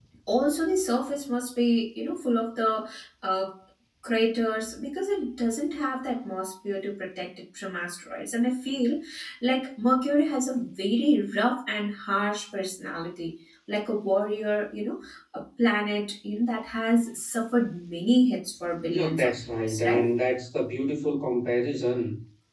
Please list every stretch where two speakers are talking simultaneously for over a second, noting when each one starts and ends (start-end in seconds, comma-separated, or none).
18.9-20.1